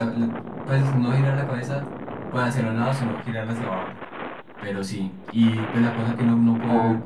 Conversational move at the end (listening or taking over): listening